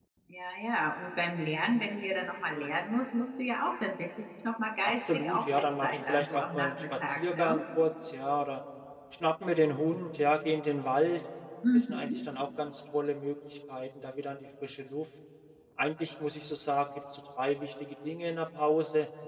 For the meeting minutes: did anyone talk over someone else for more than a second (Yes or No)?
Yes